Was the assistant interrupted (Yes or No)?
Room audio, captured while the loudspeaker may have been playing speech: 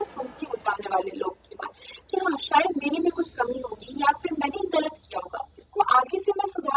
No